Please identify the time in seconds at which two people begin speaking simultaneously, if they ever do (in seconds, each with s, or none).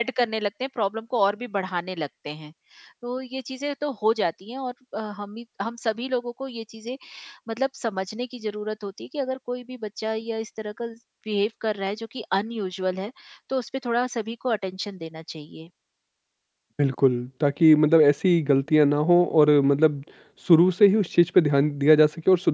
none